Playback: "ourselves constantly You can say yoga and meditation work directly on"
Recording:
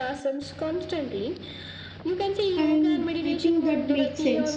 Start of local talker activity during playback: 2.6 s

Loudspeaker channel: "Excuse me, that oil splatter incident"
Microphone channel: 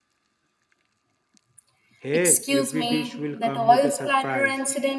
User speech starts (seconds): 2.0 s

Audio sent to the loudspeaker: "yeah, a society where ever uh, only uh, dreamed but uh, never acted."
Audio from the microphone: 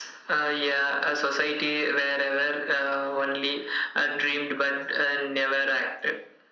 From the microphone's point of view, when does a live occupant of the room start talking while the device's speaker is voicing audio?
none

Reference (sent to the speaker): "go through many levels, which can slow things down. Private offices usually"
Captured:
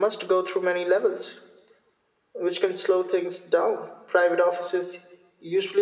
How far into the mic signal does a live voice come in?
none

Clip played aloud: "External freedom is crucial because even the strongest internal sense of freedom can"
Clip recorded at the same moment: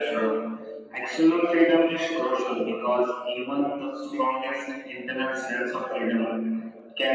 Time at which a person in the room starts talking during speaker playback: none

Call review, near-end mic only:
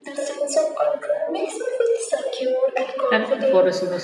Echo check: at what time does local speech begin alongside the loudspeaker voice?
3.1 s

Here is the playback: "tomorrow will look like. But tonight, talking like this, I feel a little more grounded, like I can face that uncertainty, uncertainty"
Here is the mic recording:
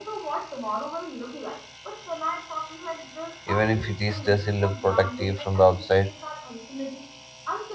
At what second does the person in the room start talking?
3.5 s

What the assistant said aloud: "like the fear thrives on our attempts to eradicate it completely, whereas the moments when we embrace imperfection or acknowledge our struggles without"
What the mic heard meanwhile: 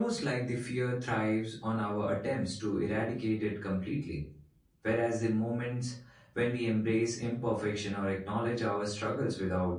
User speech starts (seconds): none

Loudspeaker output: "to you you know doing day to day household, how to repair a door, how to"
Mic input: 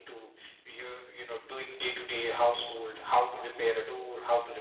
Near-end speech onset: none

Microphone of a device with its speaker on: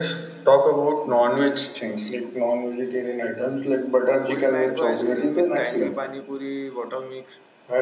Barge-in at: 4.2 s

